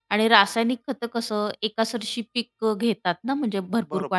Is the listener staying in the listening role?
No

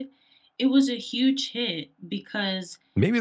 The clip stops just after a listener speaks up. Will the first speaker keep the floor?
No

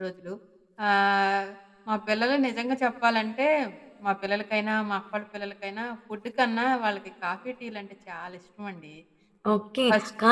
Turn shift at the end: Yes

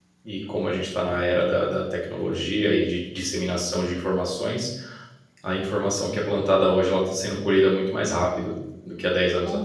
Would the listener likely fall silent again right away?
No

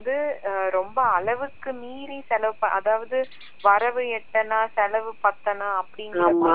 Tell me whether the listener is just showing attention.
Yes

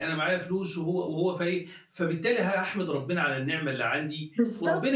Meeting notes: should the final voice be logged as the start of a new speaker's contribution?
No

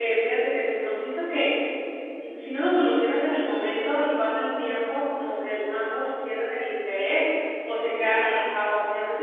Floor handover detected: No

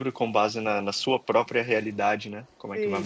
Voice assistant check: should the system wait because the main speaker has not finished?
No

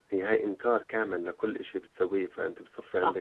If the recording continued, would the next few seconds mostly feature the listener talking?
Yes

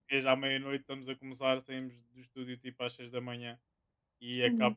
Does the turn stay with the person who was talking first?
Yes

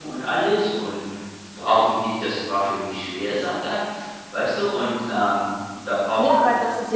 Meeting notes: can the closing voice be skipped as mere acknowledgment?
No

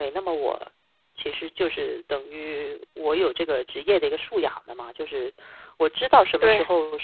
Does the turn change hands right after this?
No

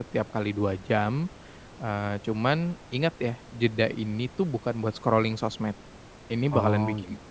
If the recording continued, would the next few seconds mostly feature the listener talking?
No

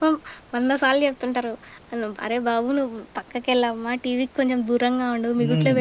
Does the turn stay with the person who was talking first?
No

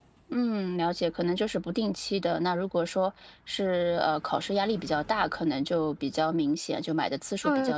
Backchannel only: No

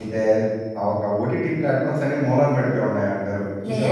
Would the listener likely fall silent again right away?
No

